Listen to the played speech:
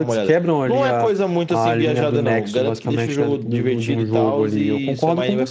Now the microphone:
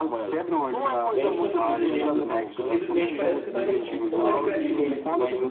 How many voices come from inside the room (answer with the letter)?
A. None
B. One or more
B